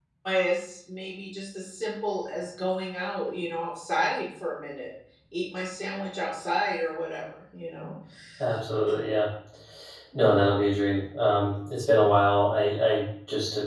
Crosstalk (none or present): none